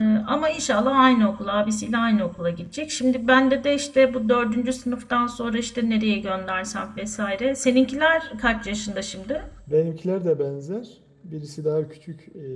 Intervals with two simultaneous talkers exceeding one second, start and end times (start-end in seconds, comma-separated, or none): none